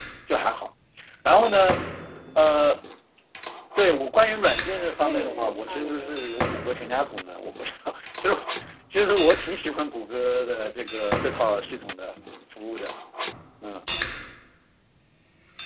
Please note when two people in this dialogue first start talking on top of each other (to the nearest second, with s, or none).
5 s